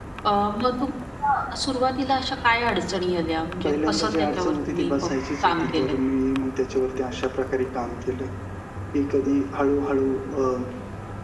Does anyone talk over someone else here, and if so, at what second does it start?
3.6 s

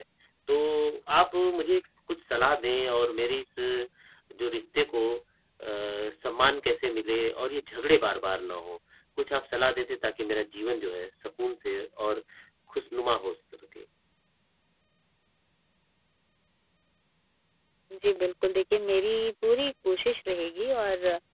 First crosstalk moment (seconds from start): none

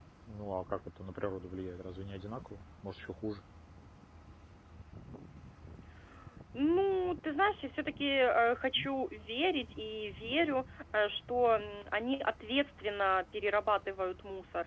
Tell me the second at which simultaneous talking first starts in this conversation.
none

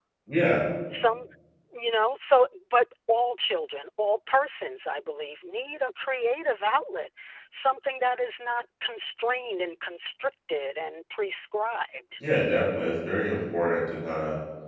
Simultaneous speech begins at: none

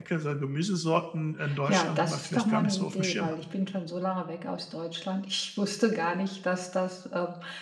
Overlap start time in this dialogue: 1.4 s

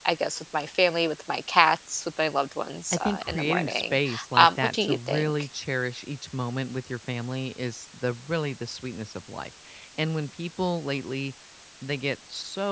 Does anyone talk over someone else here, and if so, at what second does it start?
2.9 s

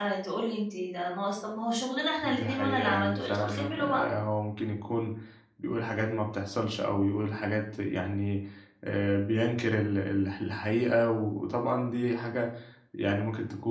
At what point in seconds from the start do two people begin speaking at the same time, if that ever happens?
2.2 s

